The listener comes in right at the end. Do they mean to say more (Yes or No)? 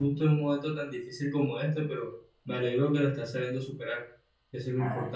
Yes